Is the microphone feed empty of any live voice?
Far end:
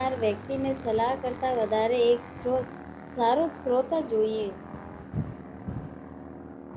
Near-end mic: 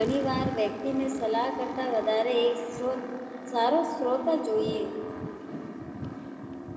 Yes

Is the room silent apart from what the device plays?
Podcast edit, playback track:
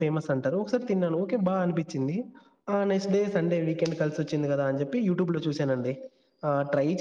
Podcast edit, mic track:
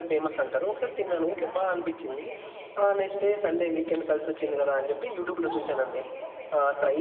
No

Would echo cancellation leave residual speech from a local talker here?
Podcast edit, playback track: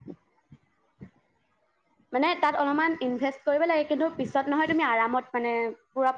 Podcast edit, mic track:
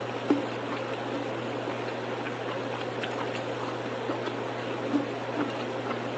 No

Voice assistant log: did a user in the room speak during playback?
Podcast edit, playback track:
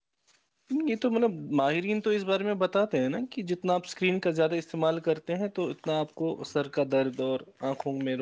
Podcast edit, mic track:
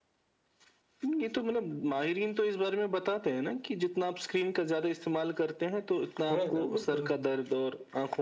Yes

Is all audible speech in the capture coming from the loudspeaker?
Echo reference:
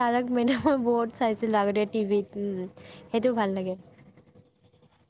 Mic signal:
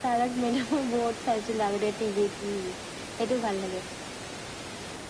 Yes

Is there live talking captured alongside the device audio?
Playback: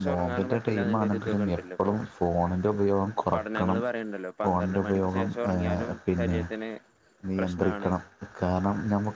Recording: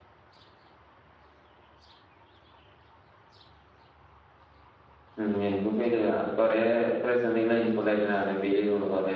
Yes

